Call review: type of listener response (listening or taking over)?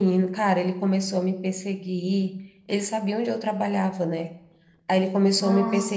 listening